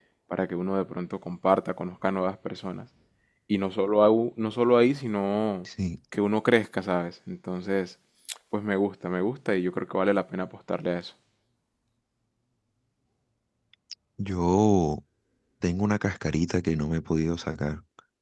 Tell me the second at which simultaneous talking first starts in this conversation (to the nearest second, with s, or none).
none